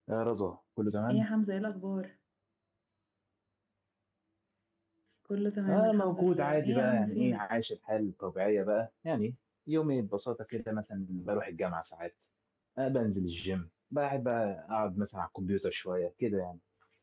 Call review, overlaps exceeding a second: present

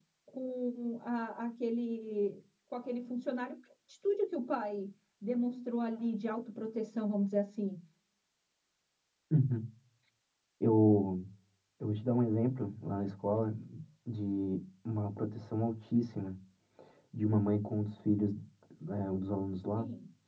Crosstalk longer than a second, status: none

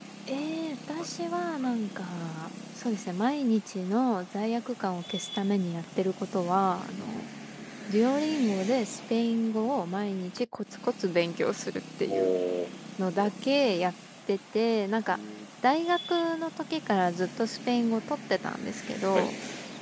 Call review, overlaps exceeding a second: none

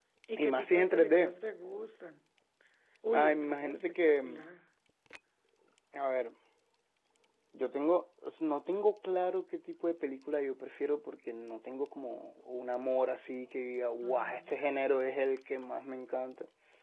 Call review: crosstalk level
present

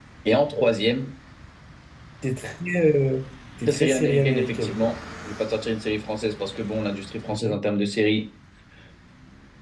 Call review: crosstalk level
present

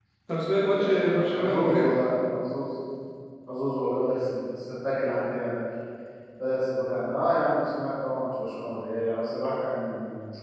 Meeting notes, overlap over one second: present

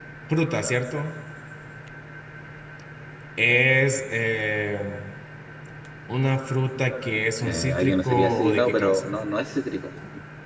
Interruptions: present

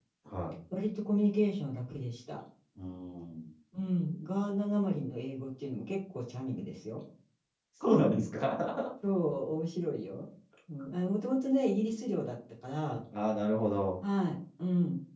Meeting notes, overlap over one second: none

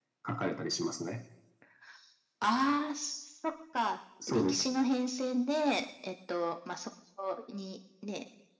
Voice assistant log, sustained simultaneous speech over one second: none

